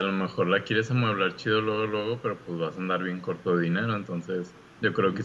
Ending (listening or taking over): listening